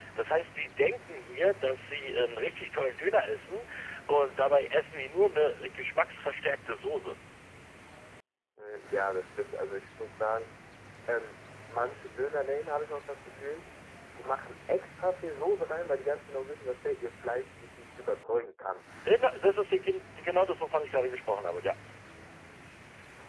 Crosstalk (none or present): none